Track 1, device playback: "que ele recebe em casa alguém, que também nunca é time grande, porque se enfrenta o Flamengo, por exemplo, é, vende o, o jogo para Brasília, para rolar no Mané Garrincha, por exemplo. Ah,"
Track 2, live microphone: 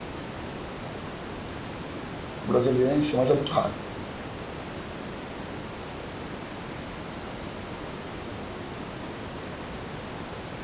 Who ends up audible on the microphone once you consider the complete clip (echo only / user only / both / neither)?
user only